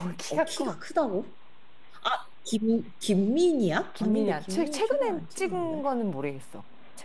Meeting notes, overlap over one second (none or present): present